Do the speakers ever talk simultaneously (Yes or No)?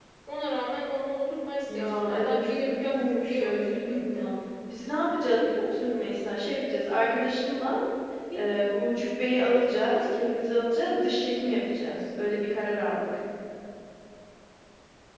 Yes